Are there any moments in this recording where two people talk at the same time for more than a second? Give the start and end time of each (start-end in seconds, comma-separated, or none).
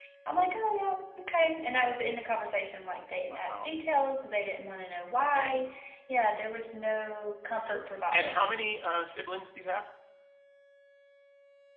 none